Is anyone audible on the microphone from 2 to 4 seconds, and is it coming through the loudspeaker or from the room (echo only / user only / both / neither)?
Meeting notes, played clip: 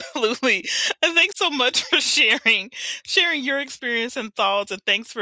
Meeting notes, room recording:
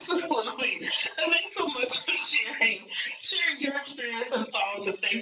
echo only